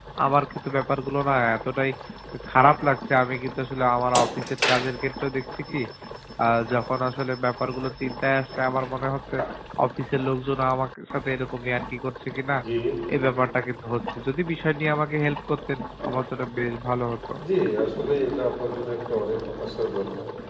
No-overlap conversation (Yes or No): Yes